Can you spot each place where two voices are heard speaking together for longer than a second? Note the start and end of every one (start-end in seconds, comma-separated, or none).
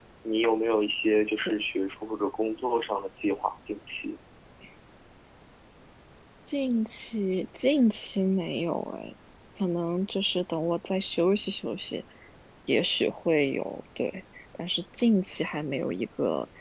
none